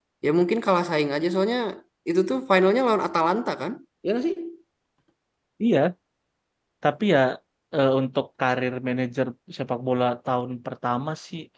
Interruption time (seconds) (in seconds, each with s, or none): none